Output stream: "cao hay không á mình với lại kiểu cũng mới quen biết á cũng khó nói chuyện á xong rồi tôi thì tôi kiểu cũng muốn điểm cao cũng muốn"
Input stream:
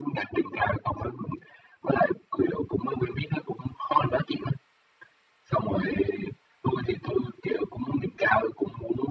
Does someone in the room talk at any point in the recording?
No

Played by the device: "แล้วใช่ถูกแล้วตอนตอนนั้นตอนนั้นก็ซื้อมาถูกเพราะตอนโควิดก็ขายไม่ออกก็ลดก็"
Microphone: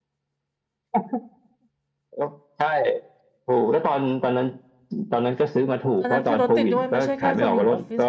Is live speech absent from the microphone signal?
No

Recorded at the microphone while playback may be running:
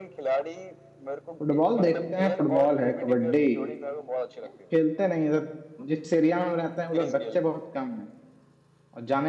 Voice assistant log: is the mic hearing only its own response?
No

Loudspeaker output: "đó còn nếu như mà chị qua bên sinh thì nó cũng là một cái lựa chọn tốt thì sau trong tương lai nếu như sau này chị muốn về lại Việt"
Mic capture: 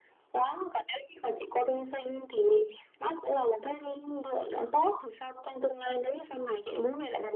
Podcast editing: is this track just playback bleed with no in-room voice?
Yes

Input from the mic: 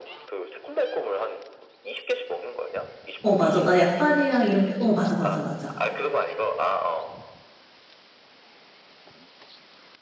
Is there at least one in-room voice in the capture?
Yes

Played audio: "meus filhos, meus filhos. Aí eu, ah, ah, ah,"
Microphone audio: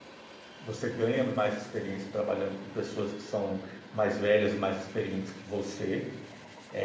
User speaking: Yes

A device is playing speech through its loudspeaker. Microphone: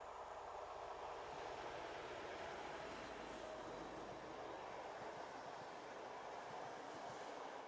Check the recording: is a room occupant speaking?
No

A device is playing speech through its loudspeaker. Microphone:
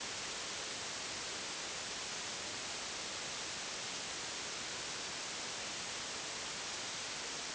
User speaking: No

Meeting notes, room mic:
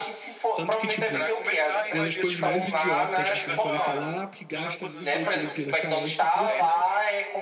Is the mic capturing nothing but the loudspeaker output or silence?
No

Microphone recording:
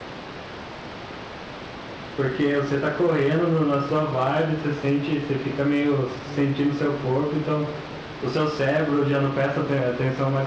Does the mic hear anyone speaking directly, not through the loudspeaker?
Yes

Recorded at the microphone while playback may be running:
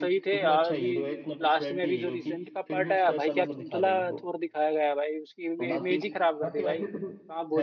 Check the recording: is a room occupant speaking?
Yes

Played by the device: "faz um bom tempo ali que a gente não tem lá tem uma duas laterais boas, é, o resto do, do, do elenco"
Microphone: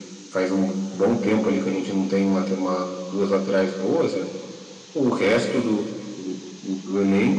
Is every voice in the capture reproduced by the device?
Yes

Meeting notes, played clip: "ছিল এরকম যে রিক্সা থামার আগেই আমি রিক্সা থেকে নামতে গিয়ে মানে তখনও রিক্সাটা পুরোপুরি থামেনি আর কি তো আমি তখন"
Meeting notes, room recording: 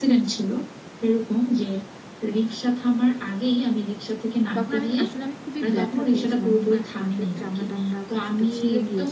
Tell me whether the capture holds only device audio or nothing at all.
No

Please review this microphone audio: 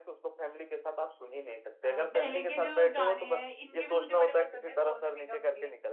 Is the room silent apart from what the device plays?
No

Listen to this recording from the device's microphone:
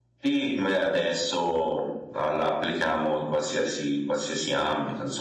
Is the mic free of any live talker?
Yes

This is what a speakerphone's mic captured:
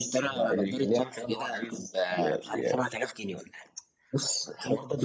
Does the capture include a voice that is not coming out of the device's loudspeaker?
No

